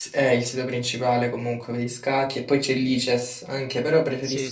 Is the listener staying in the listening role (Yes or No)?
Yes